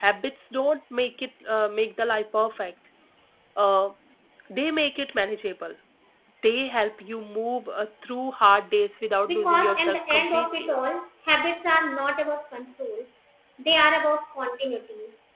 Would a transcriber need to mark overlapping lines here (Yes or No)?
Yes